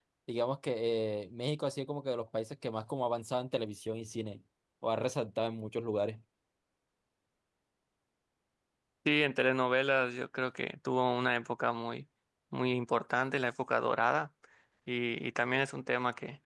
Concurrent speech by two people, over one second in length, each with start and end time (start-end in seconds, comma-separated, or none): none